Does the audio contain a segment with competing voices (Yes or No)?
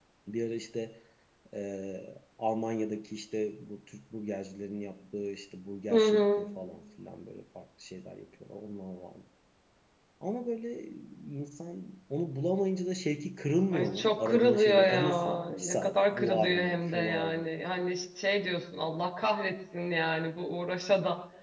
Yes